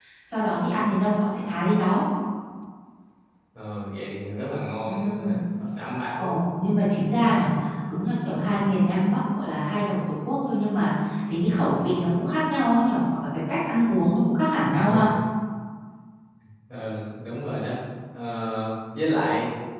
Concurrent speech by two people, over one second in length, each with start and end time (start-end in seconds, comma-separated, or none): none